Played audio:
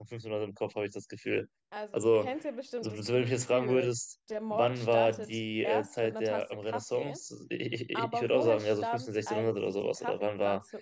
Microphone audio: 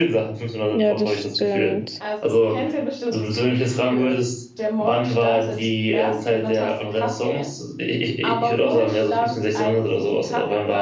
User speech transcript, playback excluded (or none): Ja, das stimmt.